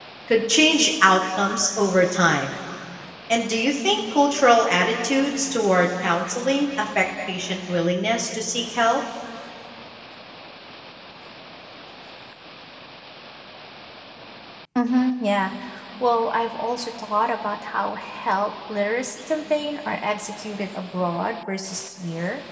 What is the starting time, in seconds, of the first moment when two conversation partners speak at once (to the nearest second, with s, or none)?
none